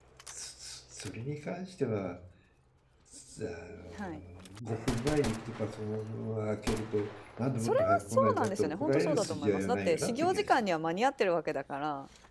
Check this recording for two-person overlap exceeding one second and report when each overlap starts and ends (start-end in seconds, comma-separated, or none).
7.6-10.5